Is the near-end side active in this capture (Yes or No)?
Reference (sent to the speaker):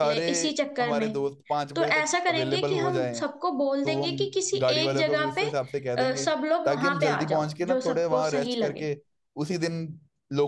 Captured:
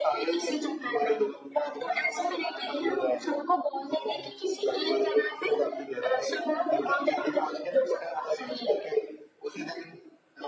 No